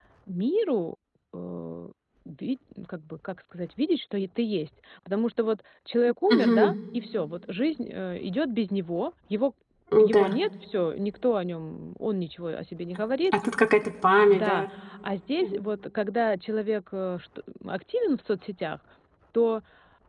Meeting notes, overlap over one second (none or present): none